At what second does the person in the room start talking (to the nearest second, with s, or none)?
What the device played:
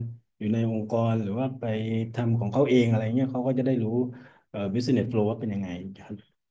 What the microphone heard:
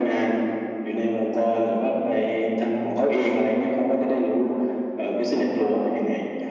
none